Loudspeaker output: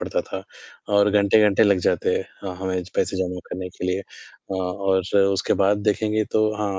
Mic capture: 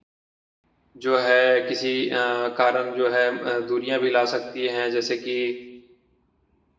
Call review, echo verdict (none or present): none